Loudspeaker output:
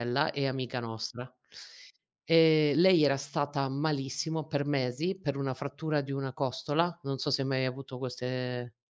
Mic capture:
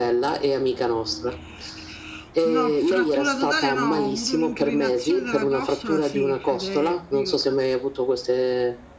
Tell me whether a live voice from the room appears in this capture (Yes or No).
Yes